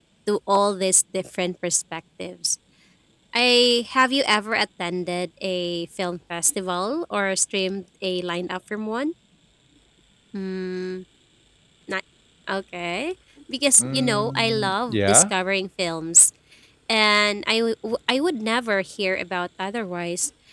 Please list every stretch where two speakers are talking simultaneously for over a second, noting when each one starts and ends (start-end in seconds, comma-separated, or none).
13.8-15.2